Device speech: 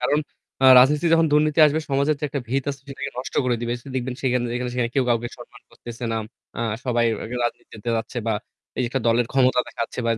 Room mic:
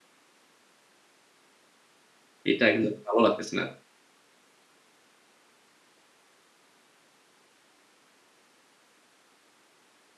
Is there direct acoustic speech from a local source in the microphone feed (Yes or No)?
Yes